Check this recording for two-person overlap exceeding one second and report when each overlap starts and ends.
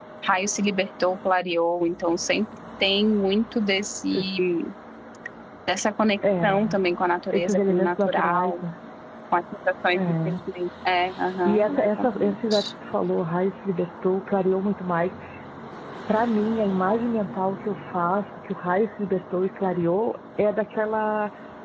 7.3-8.6, 11.4-12.7

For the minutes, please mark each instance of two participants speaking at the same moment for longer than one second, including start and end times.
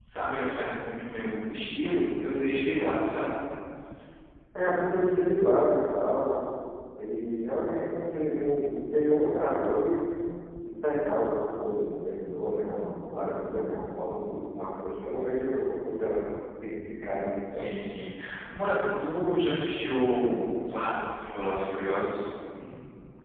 none

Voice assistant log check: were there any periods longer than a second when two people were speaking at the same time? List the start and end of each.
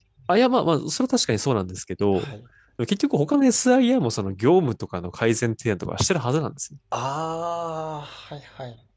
none

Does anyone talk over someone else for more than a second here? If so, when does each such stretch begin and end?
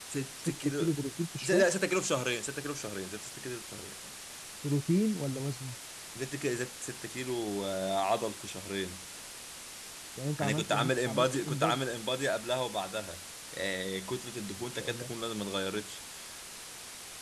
10.4-11.8

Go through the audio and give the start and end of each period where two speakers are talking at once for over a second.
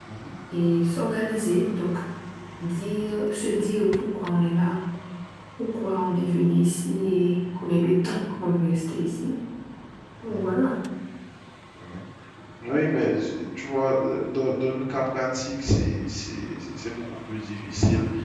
none

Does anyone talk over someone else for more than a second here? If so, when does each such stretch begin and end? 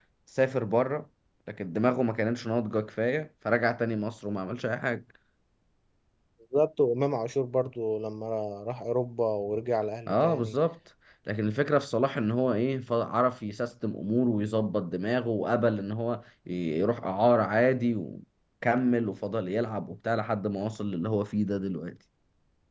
none

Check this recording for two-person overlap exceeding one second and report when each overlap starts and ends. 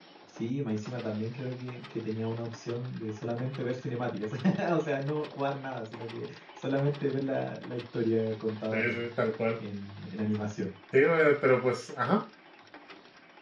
none

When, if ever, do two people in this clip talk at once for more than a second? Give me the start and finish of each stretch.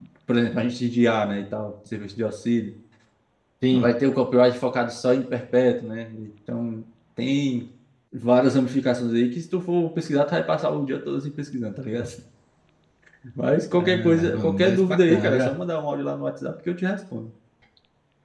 13.8-15.5

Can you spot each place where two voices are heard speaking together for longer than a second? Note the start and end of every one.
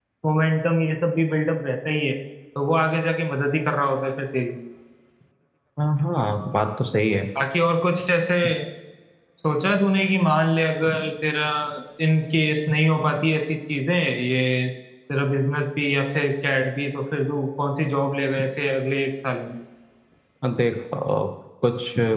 none

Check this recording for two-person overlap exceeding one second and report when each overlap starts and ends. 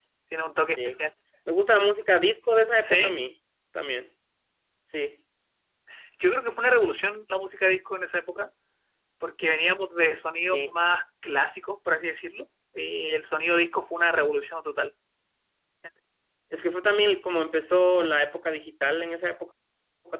none

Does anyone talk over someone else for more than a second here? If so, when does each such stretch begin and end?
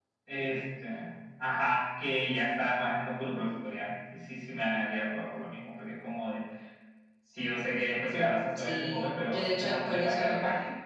8.6-10.4

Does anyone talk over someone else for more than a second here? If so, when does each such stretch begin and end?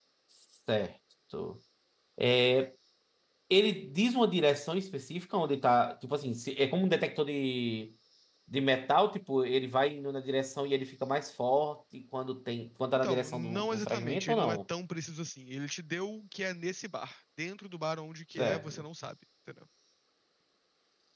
12.9-14.6

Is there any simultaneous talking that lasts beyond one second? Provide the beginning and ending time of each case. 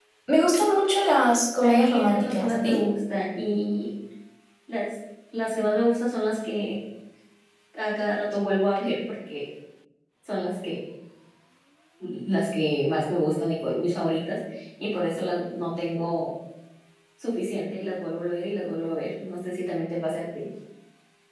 1.6-2.8

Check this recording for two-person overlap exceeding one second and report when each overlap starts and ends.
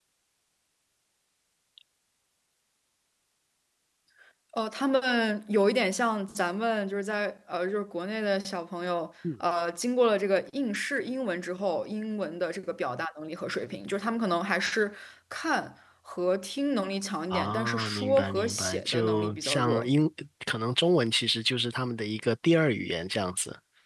17.3-19.9

